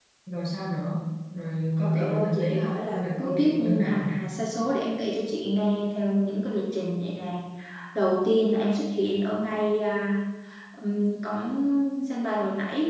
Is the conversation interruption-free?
No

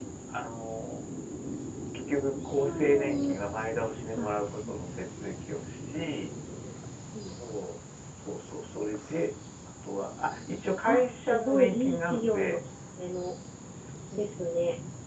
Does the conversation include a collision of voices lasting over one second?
Yes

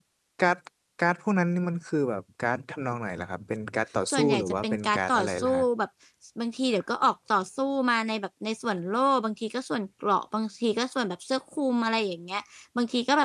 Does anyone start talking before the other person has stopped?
Yes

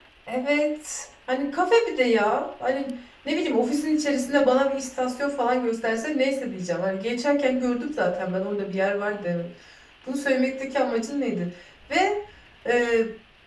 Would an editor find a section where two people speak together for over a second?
No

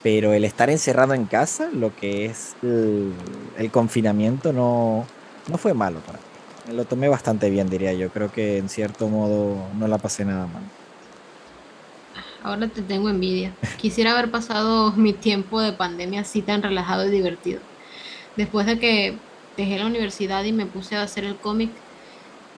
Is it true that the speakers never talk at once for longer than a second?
Yes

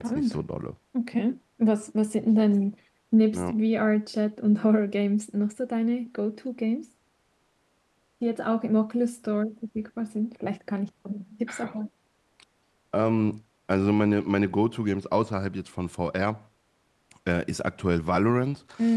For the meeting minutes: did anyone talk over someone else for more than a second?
No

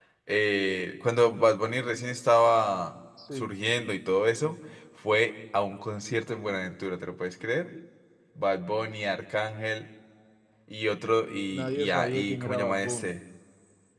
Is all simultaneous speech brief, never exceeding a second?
No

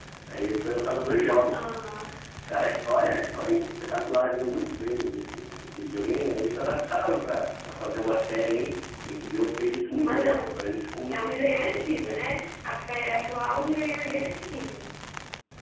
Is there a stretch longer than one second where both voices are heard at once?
No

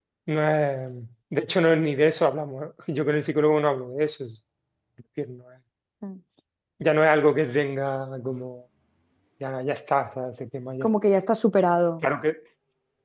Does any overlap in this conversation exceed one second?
No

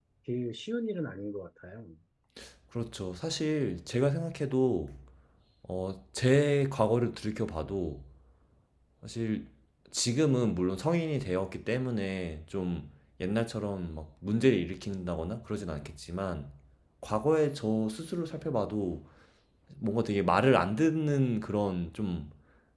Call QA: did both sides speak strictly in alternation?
Yes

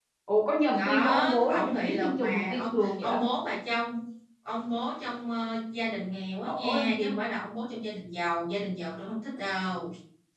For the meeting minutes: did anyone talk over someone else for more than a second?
Yes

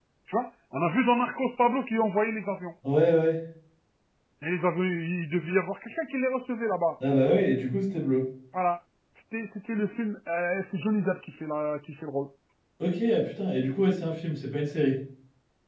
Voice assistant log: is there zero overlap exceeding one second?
Yes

